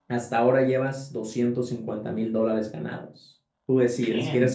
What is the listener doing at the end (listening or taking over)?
listening